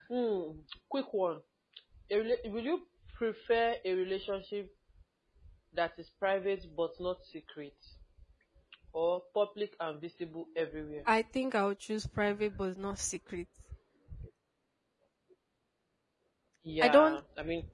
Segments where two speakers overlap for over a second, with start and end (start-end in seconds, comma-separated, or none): none